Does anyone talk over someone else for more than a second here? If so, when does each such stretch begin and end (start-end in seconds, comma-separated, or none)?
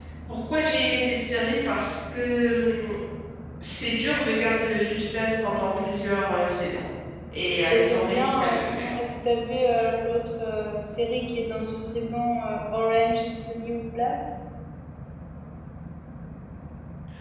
7.7-8.9